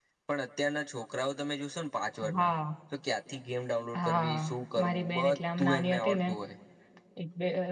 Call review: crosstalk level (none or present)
present